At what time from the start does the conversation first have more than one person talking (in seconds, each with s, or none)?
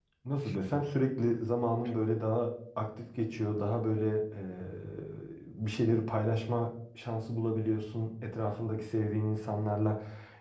none